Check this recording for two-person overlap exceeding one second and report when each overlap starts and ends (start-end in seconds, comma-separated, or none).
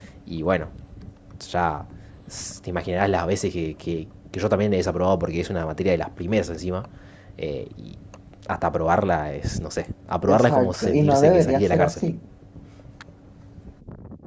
10.3-11.9